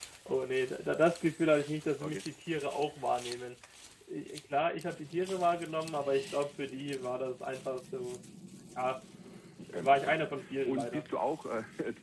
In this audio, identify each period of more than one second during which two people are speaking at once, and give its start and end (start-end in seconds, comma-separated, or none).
9.7-11.1